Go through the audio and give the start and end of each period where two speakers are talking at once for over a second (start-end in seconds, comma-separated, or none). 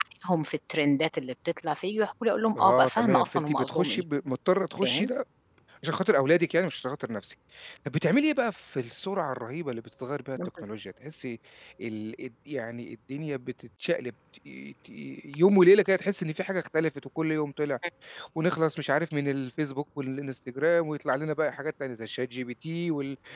2.6-4.0